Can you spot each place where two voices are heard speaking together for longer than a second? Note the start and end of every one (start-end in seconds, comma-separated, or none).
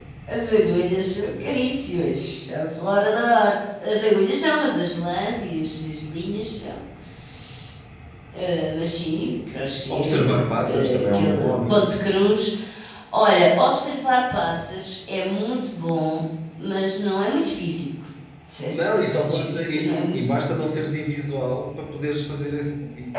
9.9-11.8, 18.7-20.5